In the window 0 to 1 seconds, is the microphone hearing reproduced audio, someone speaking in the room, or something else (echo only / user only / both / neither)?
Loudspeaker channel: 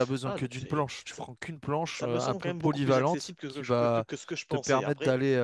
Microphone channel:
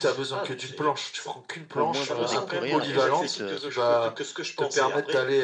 echo only